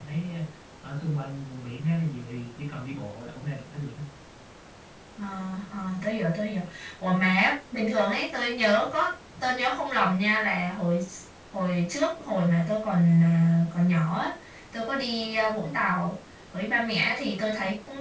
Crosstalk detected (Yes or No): No